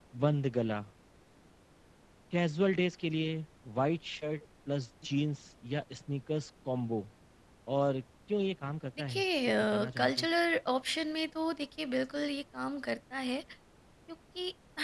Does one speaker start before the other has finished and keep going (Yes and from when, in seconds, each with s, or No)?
Yes, from 9.0 s